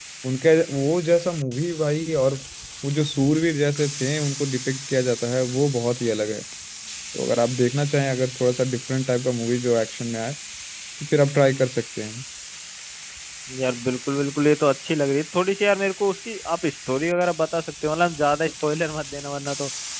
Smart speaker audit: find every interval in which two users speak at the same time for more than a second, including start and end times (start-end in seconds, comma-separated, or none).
none